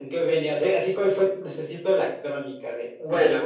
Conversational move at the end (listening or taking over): listening